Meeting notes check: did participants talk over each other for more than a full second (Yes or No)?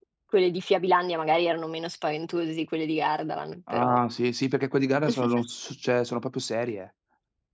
No